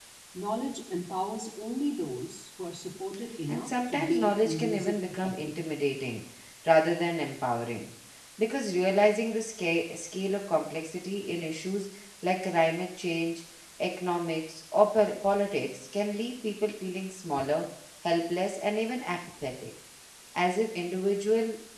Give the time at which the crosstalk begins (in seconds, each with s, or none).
3.5 s